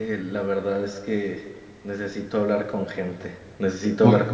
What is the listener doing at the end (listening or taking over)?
listening